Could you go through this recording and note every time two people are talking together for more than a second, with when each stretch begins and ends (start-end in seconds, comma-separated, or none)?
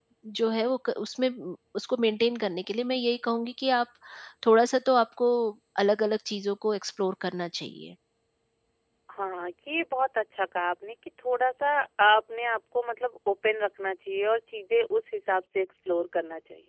none